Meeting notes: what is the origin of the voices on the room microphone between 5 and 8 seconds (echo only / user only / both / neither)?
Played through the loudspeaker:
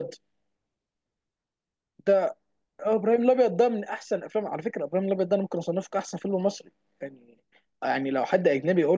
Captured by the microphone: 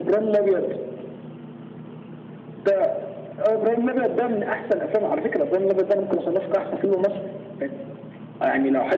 echo only